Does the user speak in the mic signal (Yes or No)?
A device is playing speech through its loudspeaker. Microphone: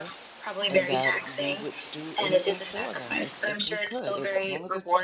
Yes